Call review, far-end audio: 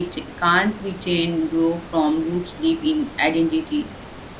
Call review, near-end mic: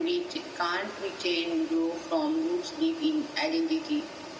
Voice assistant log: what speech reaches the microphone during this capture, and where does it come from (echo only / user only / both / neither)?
echo only